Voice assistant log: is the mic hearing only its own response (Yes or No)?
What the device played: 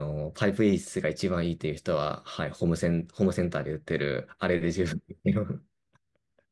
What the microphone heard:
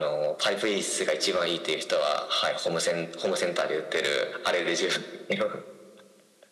Yes